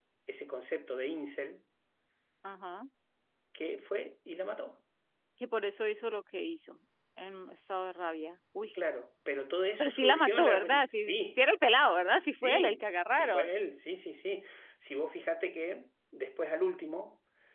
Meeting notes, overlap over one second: present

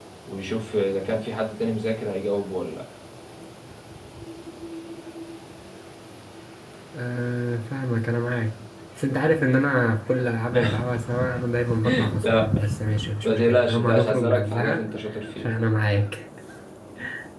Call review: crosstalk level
present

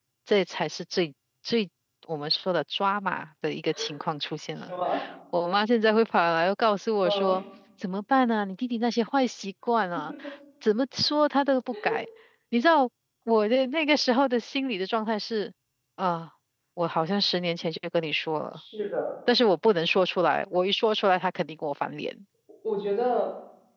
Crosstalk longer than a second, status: none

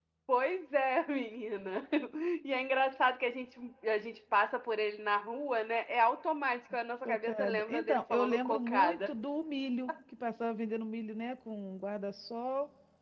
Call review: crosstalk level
present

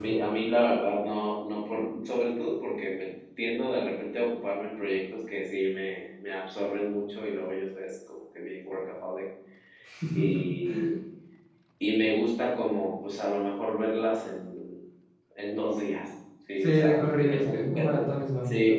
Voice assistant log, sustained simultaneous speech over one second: present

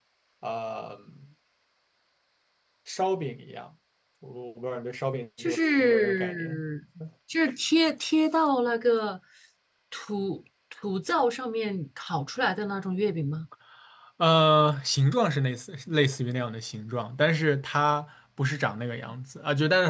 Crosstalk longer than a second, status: present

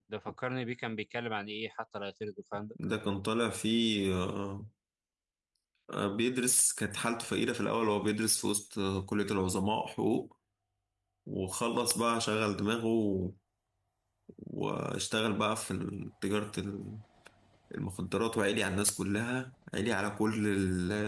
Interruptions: none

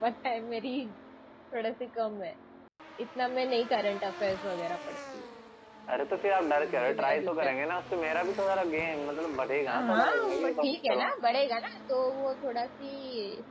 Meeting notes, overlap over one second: present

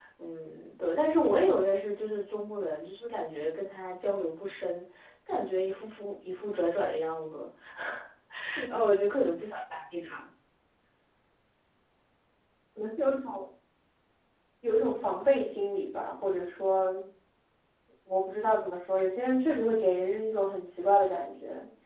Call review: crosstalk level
none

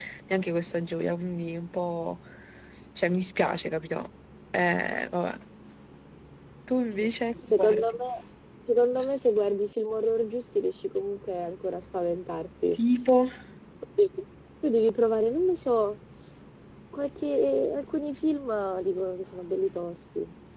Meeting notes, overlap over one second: none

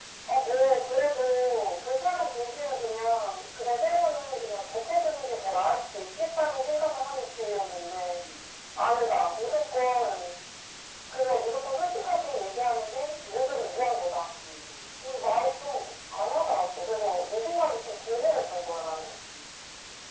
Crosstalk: none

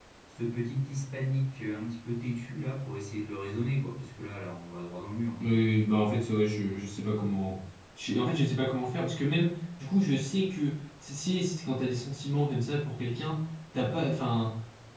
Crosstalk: none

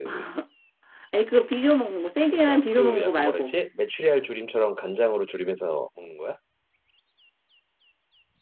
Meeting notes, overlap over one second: present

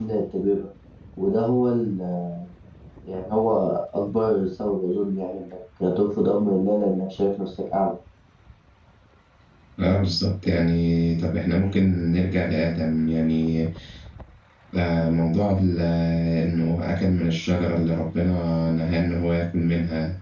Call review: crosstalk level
none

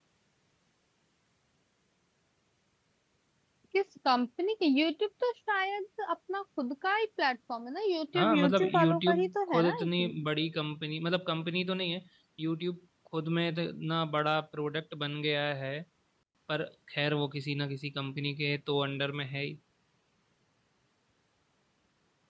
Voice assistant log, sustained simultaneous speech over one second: present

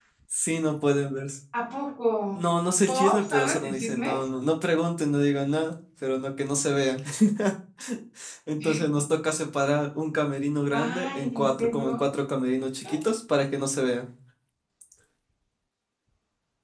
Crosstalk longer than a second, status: present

